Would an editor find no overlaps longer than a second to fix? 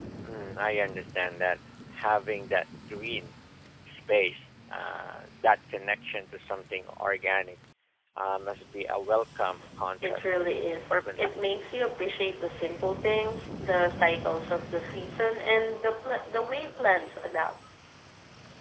No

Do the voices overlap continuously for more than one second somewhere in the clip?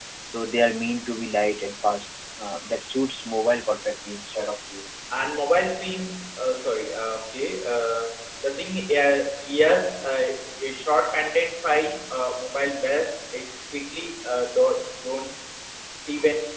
No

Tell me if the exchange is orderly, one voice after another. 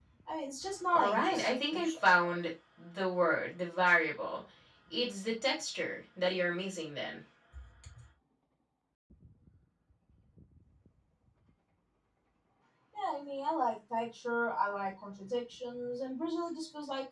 No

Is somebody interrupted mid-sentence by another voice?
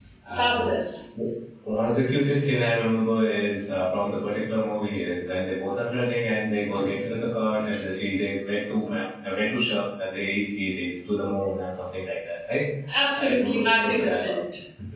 Yes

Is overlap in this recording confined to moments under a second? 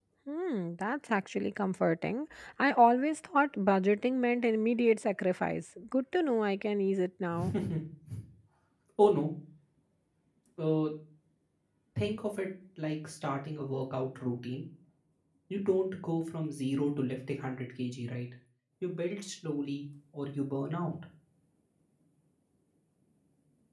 Yes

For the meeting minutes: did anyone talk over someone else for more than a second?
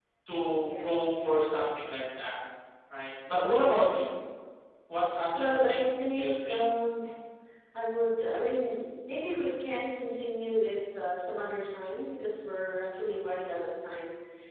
Yes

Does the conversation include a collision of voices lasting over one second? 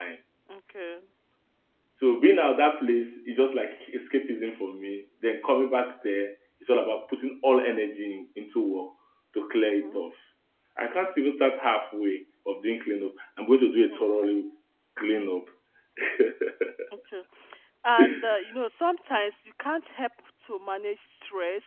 No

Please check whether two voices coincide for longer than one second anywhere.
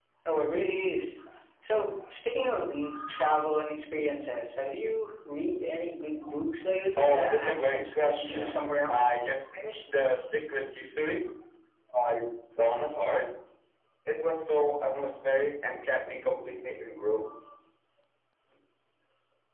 Yes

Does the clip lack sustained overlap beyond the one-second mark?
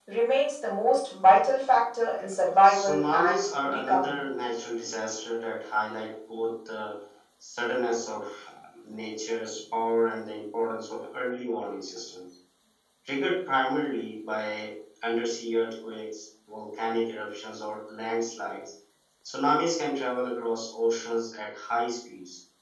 No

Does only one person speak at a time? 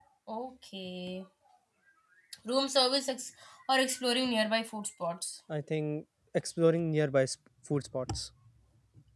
Yes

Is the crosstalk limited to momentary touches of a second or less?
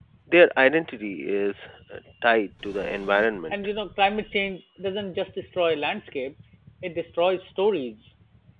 Yes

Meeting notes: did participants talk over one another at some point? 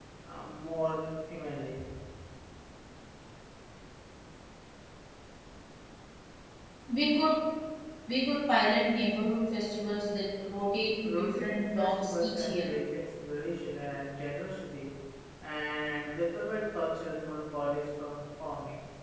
Yes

